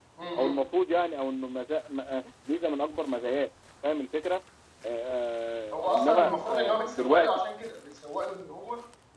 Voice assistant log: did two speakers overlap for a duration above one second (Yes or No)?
Yes